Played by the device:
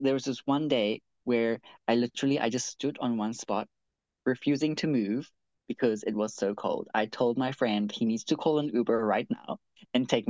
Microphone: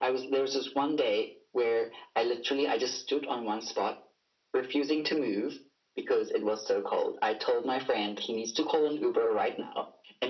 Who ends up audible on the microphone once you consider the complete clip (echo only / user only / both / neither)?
echo only